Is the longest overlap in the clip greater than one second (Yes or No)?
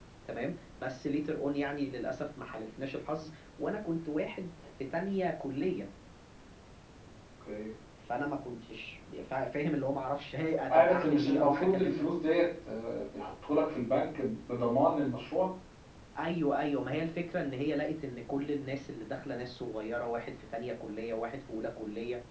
Yes